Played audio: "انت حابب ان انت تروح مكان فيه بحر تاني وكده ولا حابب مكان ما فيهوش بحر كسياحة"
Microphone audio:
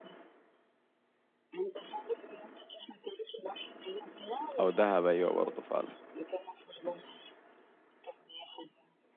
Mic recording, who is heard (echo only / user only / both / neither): both